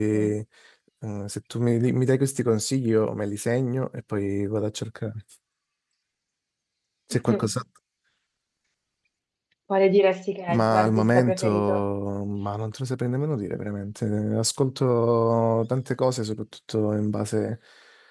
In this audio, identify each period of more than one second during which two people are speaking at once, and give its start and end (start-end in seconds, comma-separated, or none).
10.5-11.8